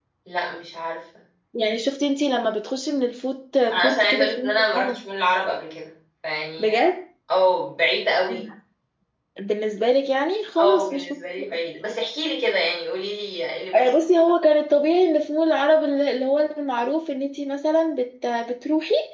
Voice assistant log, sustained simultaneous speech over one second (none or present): present